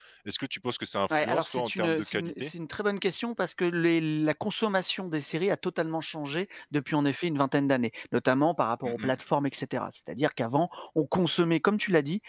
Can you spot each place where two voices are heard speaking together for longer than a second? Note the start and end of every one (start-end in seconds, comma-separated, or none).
1.1-2.5